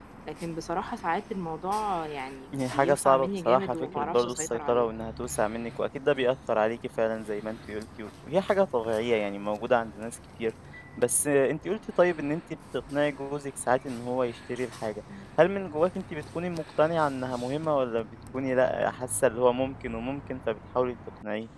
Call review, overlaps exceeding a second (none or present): present